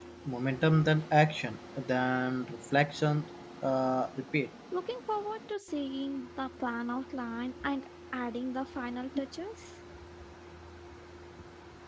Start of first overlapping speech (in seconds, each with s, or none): none